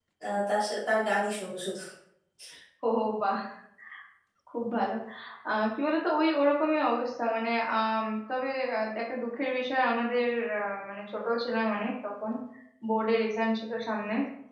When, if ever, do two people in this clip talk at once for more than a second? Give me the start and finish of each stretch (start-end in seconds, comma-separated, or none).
none